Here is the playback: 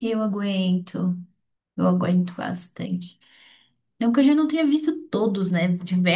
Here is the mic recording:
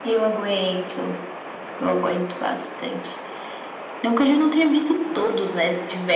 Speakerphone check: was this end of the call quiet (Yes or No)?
Yes